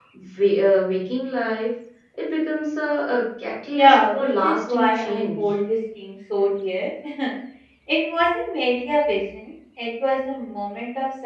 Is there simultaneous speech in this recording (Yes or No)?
Yes